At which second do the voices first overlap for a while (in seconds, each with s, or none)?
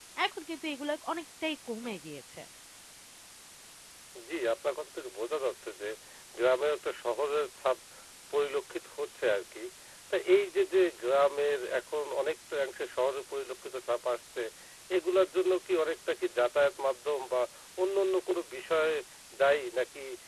none